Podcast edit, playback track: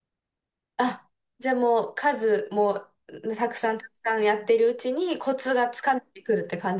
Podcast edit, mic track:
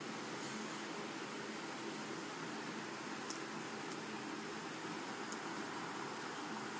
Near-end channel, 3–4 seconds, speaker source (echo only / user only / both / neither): neither